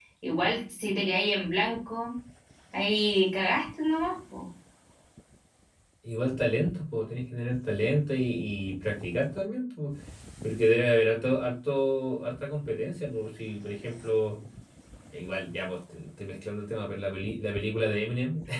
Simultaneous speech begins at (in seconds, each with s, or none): none